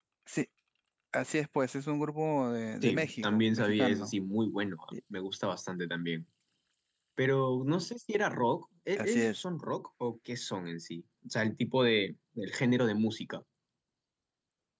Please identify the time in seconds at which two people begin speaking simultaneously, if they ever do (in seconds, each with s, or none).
2.8 s